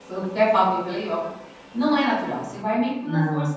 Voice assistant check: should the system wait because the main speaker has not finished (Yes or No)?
Yes